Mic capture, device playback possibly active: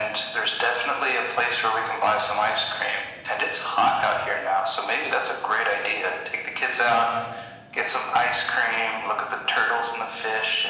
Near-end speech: none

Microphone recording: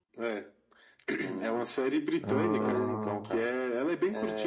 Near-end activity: present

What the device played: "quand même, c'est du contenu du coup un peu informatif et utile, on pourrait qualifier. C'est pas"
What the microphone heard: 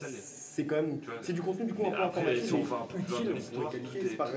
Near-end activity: present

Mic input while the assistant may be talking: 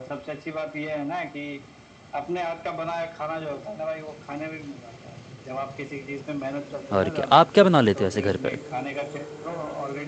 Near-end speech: present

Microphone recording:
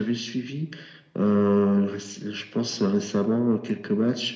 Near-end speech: none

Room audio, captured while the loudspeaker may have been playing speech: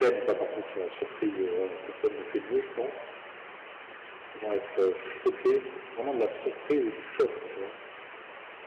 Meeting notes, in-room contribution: present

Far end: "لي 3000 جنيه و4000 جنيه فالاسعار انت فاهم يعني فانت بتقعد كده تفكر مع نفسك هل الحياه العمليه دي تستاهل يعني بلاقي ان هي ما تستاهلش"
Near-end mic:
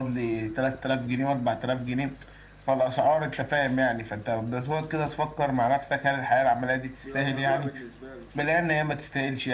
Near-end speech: present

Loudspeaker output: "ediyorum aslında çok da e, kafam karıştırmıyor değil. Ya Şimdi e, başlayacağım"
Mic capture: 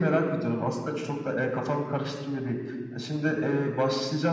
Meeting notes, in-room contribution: none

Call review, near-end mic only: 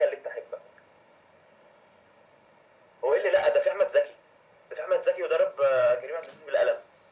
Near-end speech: none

